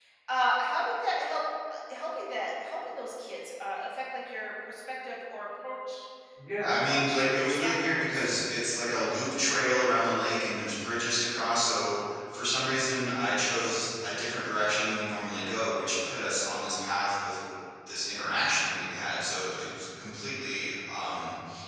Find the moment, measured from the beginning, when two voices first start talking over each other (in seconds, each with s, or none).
6.8 s